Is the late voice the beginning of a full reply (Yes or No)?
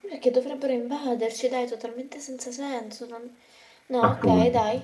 No